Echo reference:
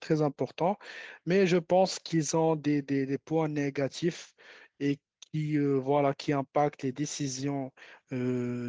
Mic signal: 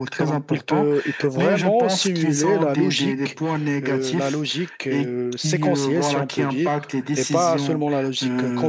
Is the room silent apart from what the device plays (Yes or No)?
No